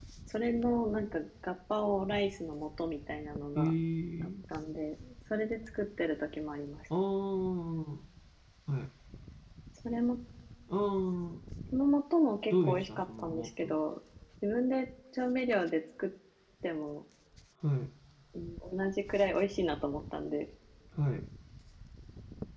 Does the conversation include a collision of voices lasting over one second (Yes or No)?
Yes